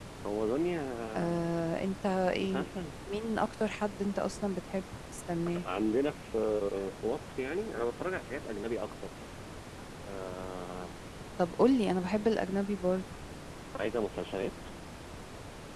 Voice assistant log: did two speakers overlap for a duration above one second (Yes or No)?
No